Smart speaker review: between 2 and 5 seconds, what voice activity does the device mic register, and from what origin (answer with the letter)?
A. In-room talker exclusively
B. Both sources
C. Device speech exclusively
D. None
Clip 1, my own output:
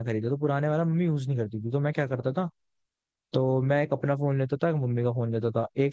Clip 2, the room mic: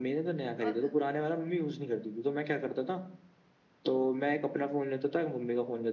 C